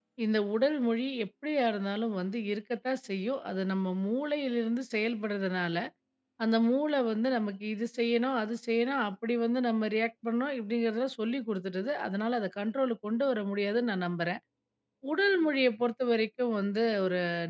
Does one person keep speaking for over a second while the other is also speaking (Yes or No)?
No